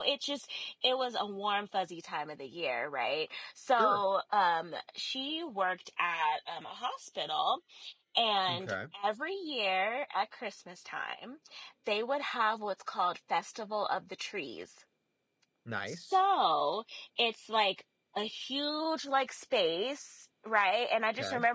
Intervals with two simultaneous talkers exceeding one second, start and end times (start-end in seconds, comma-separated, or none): none